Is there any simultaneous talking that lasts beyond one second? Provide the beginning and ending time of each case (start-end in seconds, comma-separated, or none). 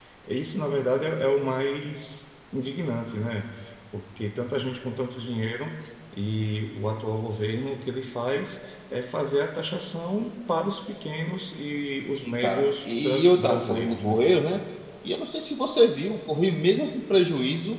12.2-14.2